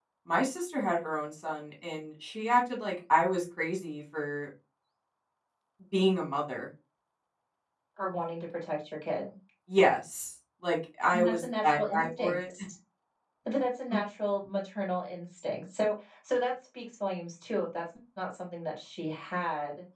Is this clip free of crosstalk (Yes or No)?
No